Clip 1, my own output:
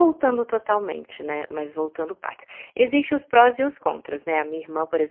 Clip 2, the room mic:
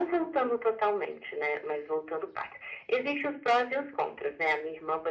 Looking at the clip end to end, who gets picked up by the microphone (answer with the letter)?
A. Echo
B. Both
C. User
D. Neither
A